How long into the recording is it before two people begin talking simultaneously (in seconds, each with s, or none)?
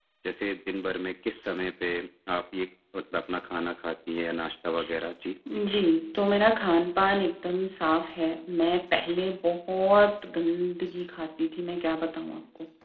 none